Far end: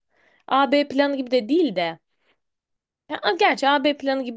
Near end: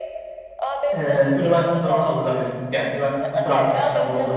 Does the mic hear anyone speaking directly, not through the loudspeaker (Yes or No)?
Yes